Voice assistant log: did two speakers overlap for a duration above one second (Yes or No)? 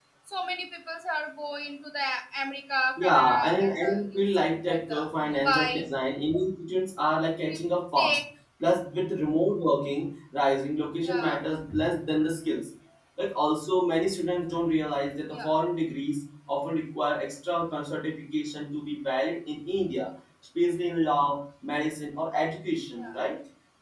Yes